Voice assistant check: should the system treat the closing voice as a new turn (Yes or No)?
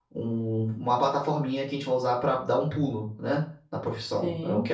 No